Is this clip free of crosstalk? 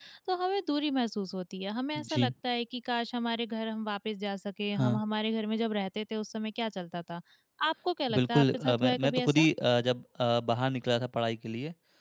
No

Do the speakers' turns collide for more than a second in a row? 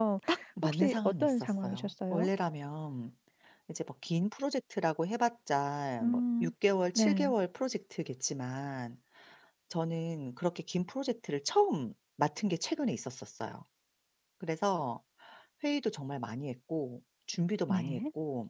Yes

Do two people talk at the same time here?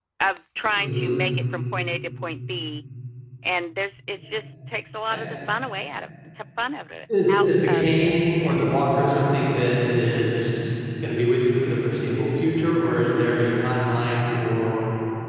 Yes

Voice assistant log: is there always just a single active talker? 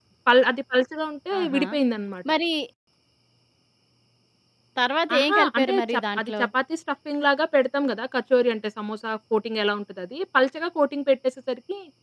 No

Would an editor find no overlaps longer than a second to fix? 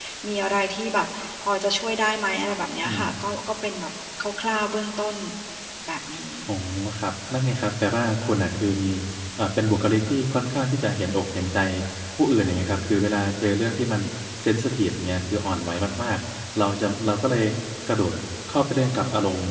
Yes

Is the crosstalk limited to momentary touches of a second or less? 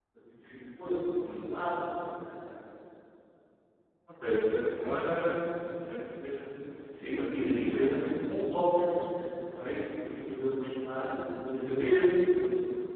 No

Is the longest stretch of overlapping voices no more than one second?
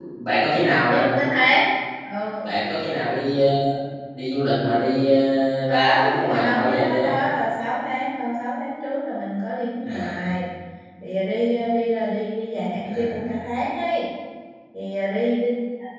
No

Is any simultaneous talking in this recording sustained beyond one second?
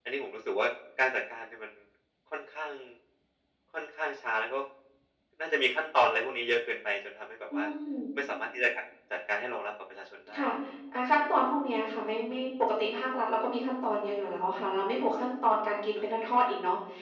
No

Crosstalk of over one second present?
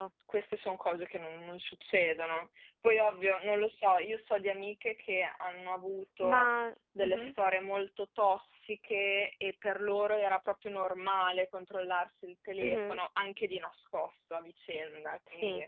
No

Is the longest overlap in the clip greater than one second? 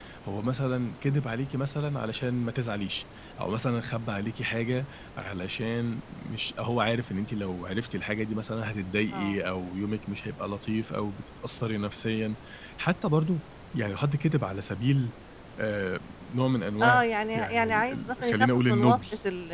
Yes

